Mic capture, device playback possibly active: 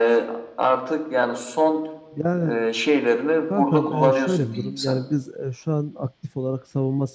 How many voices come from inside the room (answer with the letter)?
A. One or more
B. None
A